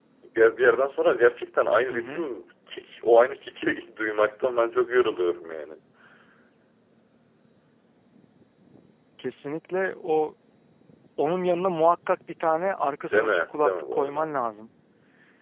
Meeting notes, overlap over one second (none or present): present